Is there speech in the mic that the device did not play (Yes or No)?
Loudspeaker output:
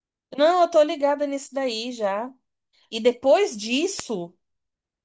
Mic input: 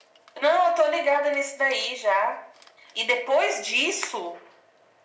No